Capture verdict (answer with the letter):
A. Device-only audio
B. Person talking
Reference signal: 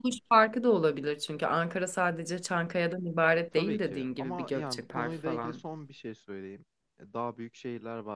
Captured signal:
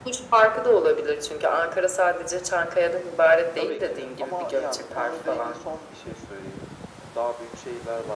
A